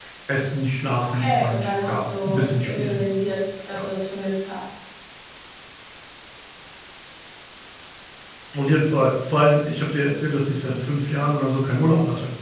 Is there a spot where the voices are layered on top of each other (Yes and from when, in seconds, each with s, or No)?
Yes, from 1.0 s